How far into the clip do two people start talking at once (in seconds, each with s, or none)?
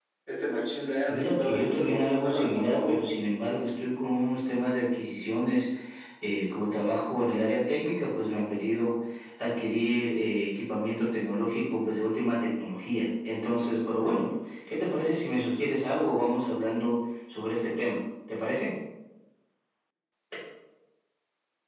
1.1 s